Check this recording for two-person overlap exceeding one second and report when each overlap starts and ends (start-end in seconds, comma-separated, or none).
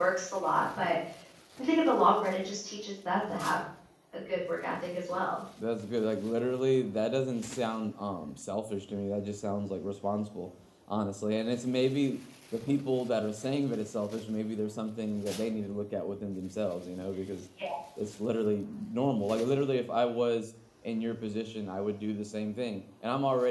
none